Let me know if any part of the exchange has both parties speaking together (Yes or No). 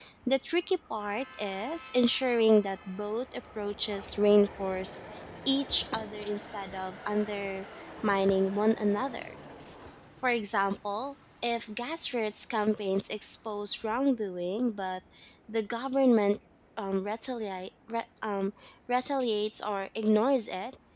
No